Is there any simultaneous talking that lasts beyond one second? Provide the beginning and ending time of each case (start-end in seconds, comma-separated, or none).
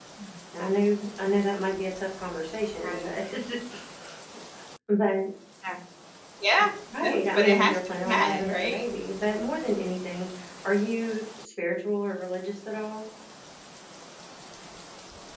7.0-8.8